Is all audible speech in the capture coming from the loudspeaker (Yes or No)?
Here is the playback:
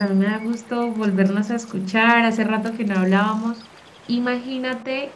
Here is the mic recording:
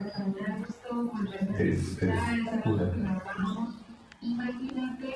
No